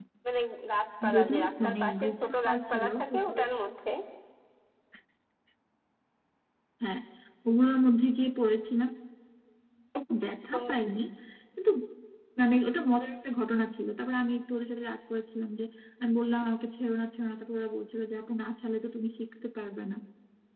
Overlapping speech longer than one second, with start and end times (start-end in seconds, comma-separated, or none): 1.1-3.4